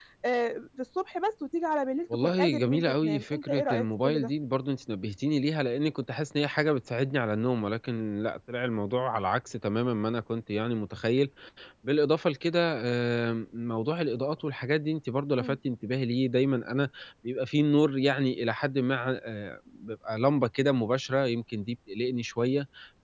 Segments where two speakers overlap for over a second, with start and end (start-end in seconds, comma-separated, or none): 2.2-4.3